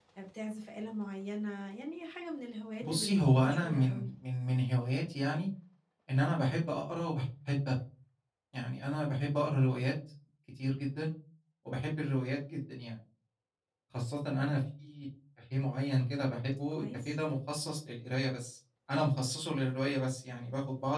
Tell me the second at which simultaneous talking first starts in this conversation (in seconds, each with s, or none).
2.8 s